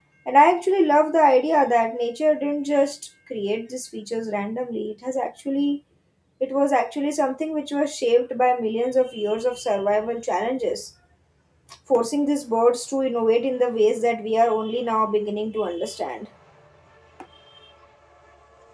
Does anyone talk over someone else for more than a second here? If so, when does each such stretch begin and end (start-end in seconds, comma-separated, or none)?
none